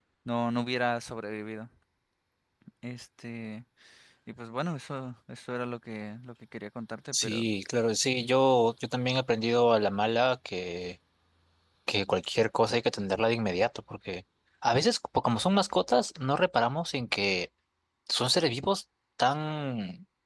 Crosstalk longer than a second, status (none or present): none